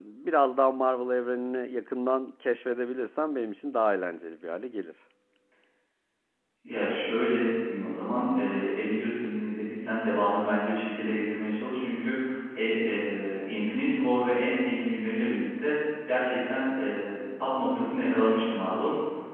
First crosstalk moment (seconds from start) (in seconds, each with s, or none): none